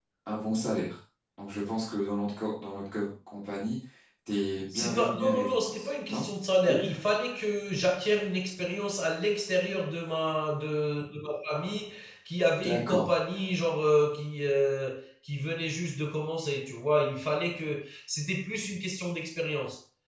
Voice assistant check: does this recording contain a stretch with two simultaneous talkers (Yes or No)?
Yes